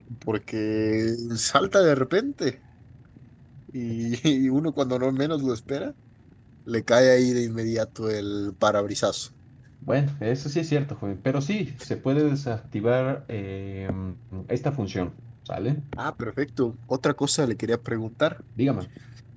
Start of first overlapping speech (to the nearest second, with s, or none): none